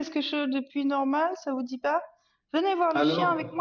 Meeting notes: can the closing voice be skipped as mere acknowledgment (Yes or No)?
Yes